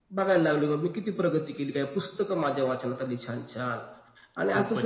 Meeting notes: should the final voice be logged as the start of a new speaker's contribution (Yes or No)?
Yes